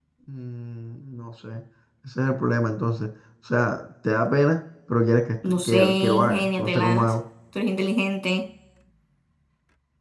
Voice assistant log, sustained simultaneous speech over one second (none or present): present